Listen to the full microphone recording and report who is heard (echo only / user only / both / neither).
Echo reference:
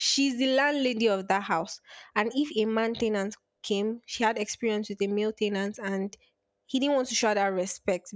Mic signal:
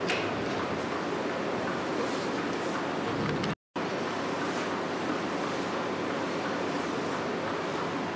neither